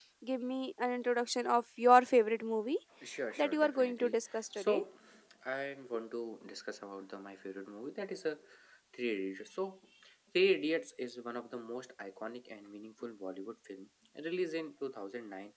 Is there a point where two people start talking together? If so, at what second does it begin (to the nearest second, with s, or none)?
3 s